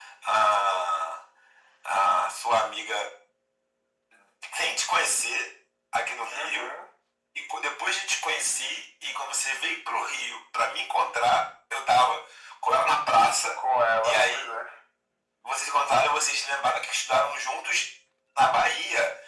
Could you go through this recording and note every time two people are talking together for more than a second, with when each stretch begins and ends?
none

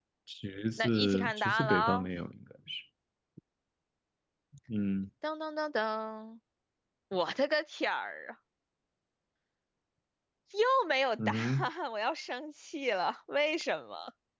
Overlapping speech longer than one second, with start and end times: 0.8-2.1

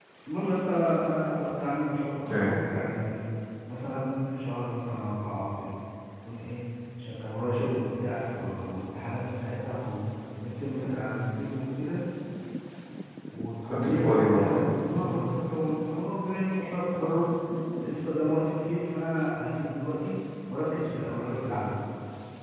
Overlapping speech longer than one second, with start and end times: 13.7-15.1

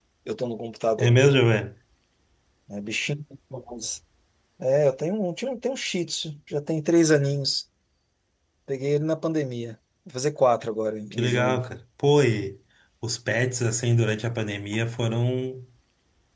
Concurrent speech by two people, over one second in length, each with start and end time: none

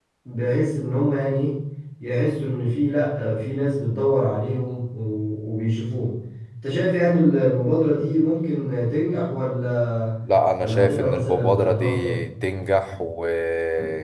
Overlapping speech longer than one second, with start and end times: 10.6-12.2

